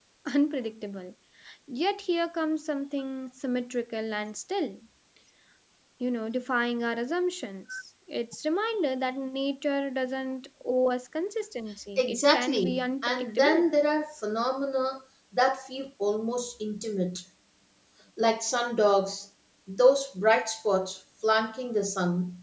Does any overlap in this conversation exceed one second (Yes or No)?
Yes